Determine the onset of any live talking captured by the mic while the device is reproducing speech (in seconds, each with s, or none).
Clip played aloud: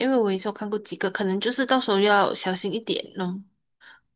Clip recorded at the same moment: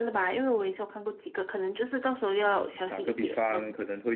2.4 s